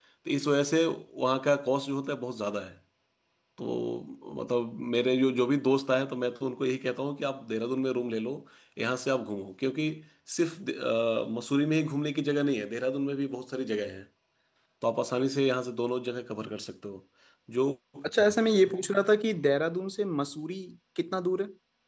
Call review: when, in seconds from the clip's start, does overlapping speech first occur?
none

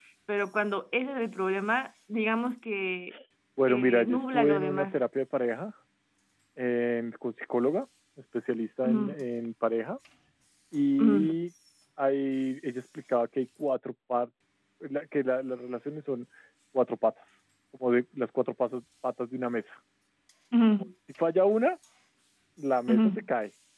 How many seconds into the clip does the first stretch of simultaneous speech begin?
3.7 s

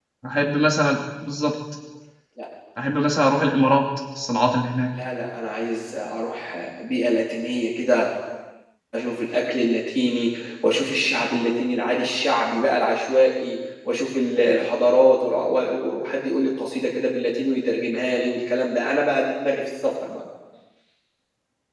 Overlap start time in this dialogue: none

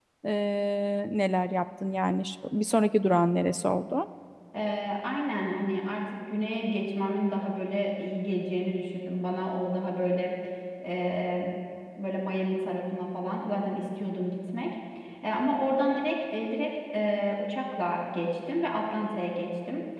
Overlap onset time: none

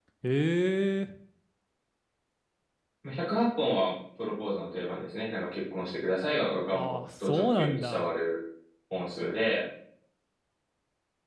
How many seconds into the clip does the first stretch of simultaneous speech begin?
6.7 s

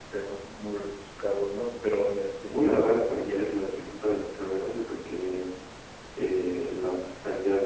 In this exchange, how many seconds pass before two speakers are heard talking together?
2.5 s

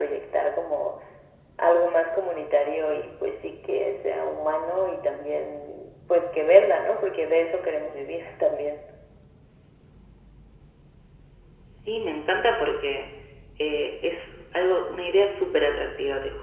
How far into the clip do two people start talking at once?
none

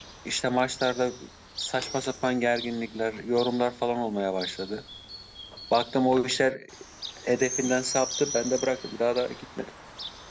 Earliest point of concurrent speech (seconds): none

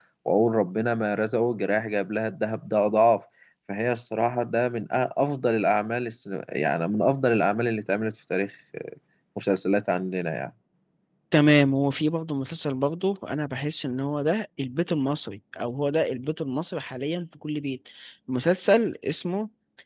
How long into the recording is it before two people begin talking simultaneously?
none

